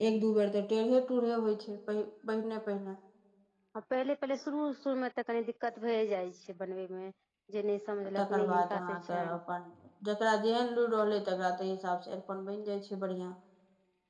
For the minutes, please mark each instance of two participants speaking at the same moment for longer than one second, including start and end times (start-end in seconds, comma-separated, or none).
8.2-9.4